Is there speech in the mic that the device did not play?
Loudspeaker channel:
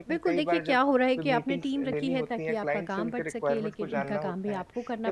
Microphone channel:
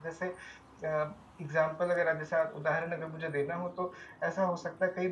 Yes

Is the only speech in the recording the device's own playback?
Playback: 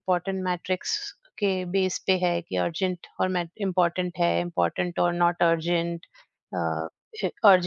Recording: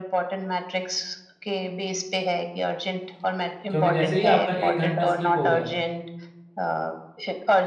No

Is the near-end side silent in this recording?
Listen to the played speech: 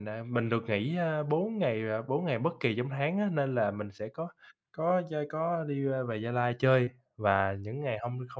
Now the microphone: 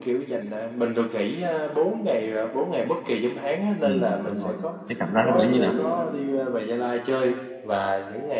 No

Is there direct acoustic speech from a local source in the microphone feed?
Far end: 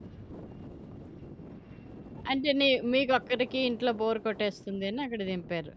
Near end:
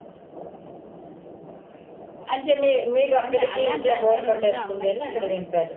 Yes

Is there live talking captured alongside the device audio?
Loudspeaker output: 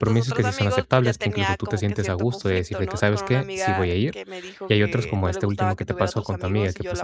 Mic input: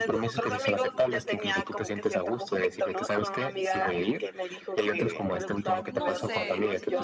Yes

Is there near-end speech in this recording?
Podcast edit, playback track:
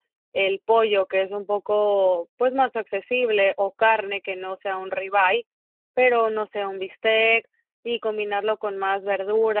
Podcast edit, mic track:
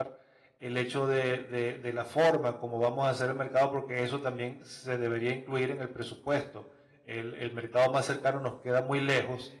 Yes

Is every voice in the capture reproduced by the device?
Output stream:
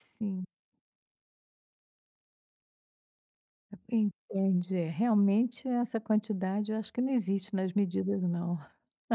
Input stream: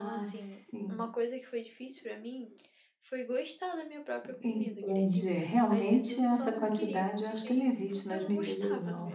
No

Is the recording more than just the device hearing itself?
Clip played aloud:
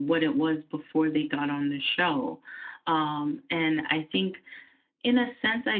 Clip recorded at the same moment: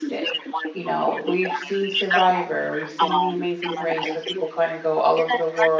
Yes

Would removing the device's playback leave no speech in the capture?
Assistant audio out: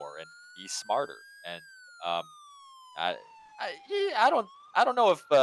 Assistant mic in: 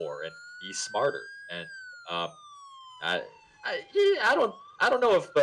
Yes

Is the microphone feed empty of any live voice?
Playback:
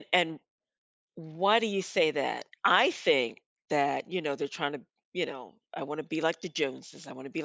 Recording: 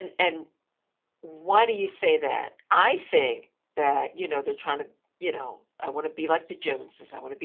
Yes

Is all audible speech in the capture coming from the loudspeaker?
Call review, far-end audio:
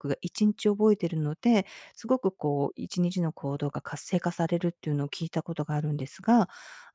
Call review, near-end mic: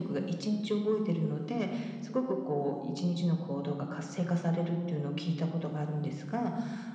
Yes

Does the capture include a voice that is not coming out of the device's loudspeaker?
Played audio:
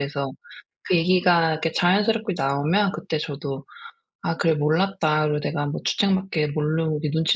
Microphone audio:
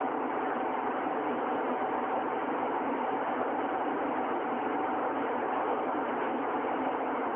No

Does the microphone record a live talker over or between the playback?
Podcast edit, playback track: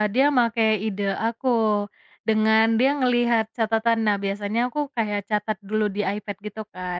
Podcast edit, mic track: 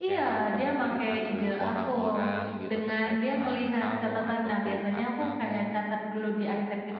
Yes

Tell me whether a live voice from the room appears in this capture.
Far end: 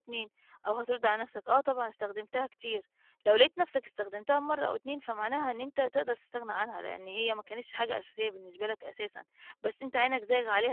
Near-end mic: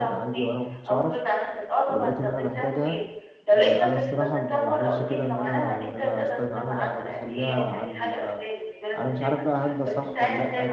Yes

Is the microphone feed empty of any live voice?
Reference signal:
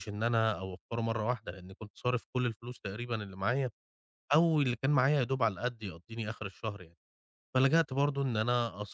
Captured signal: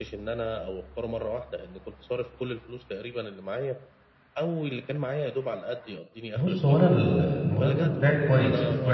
No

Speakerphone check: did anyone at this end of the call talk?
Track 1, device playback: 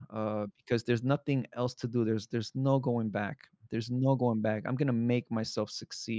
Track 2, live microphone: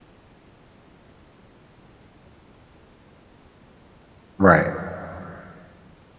Yes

